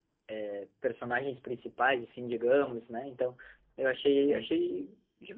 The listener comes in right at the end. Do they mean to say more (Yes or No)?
No